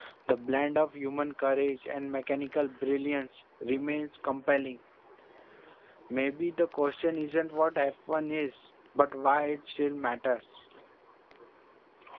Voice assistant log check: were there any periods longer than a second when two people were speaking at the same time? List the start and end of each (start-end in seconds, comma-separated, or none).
none